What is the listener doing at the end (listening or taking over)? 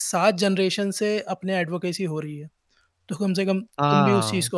taking over